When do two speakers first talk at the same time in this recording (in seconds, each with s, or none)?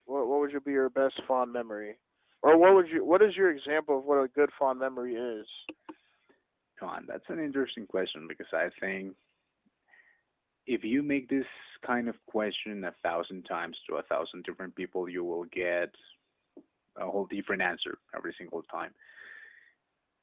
none